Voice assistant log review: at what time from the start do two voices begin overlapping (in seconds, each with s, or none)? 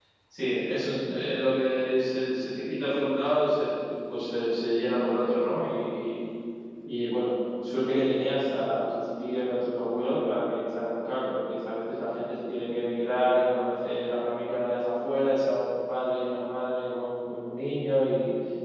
none